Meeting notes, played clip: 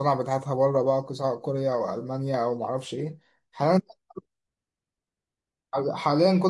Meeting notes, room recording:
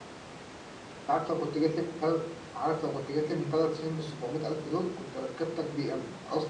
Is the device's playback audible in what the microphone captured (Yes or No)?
No